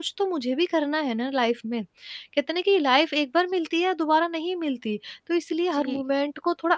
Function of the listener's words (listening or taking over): listening